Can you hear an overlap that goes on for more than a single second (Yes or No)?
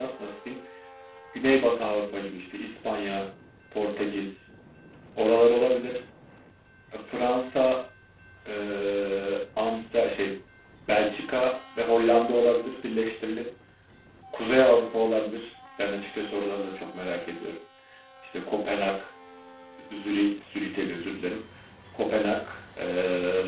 No